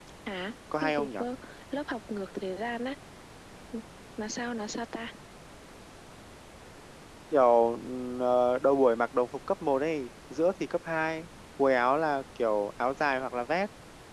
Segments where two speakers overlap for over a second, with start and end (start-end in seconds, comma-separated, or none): none